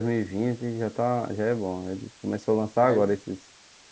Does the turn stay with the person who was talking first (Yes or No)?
Yes